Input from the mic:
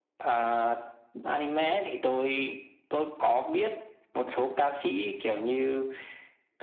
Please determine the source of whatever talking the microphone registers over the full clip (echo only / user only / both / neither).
echo only